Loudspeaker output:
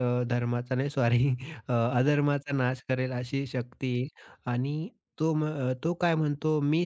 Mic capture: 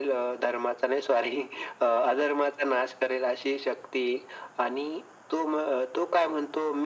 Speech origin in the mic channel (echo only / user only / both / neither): echo only